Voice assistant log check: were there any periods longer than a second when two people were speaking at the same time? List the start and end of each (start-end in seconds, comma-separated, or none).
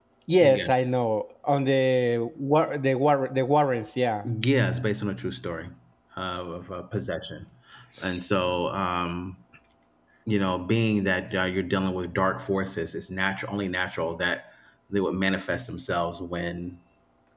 none